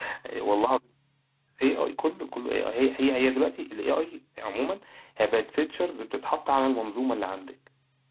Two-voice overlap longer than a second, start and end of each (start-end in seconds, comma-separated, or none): none